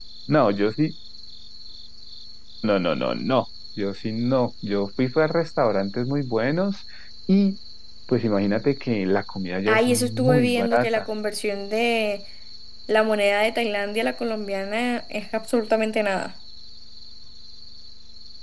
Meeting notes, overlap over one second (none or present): present